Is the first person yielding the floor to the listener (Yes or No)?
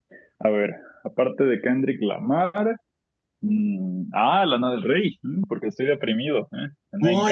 Yes